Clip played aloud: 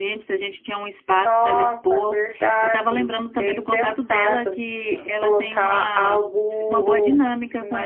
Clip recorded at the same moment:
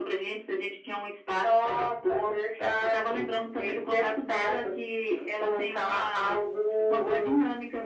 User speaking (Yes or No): No